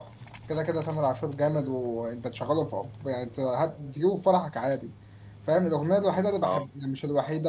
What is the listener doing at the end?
listening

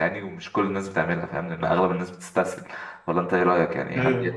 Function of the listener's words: taking over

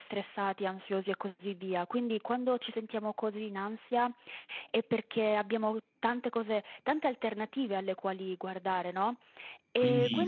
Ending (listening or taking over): taking over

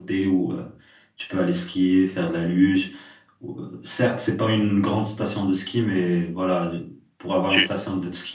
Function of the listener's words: listening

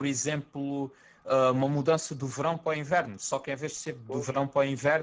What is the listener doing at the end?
listening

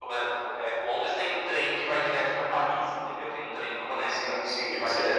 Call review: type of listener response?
taking over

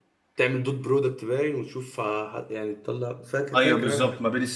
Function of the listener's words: taking over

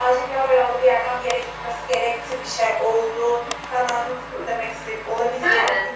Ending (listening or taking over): listening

